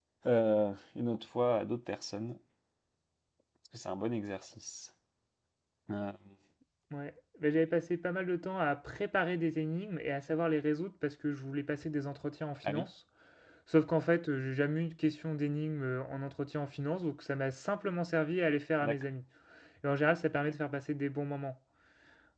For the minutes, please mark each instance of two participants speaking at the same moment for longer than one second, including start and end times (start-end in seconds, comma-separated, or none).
none